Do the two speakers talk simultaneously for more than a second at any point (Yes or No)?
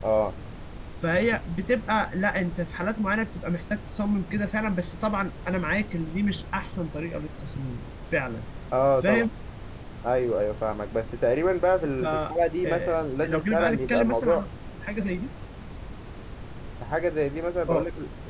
Yes